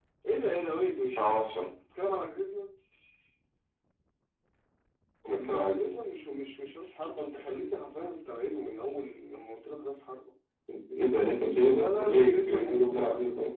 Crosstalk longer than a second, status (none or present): present